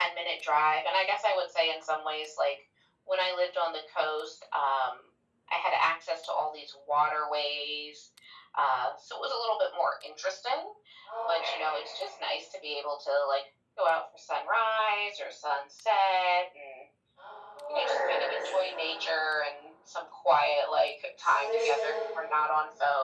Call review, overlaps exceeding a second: present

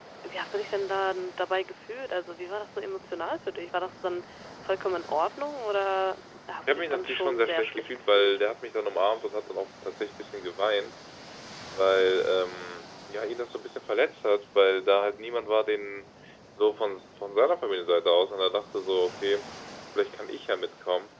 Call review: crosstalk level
present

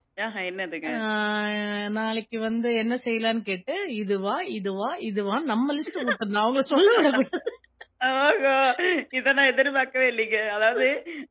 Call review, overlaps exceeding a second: none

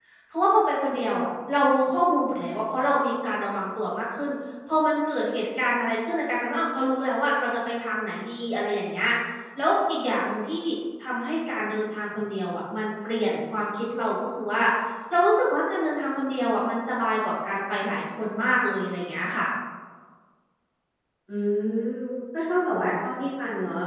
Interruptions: none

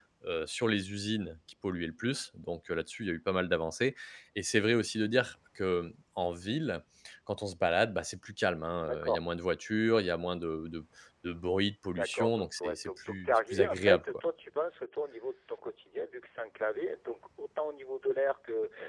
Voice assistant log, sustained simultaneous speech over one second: present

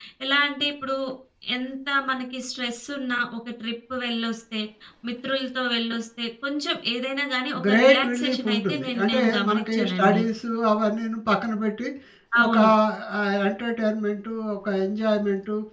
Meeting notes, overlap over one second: present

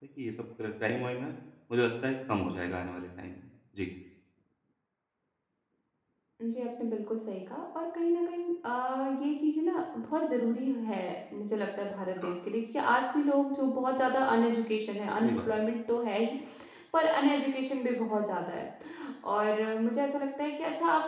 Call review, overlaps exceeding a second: none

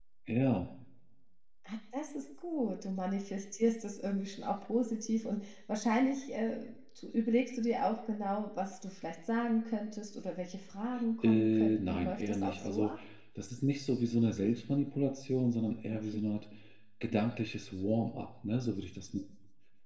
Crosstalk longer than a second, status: present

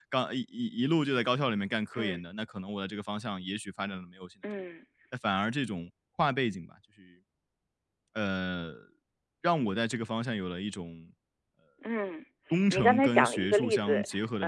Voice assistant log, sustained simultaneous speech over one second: present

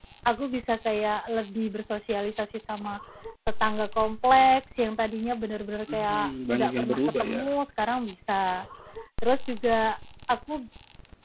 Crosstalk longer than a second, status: present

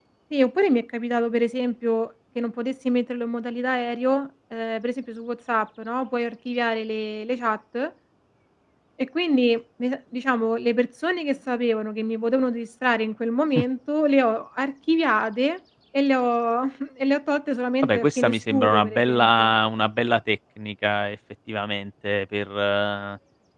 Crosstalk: present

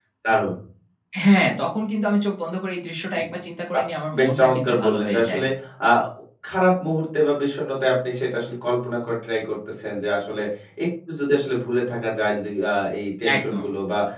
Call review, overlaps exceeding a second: present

